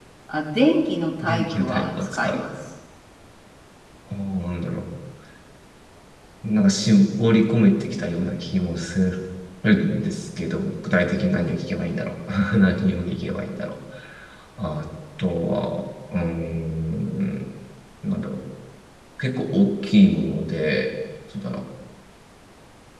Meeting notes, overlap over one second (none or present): present